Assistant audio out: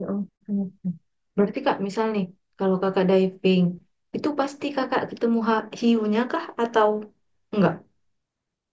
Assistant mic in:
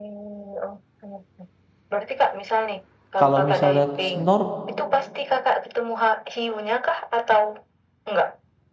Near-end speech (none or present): present